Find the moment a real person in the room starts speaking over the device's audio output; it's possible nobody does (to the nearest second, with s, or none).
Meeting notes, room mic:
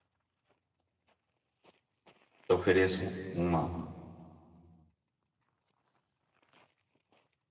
2 s